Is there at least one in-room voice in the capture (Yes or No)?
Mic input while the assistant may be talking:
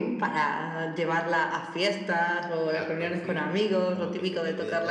Yes